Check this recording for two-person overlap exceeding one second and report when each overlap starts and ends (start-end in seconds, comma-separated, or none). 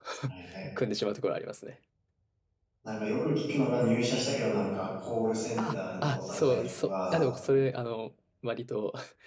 5.6-7.2